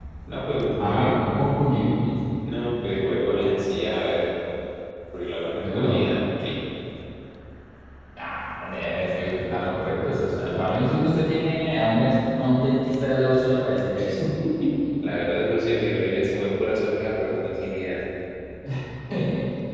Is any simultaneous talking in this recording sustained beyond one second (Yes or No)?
No